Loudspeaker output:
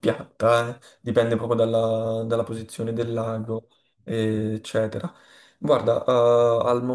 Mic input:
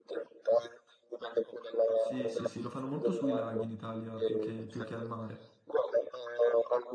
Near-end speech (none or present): present